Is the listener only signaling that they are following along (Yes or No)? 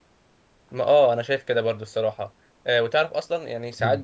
Yes